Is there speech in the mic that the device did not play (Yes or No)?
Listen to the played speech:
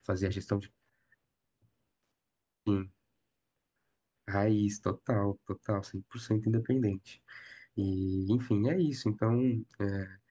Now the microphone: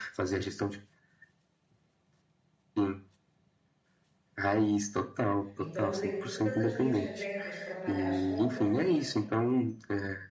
Yes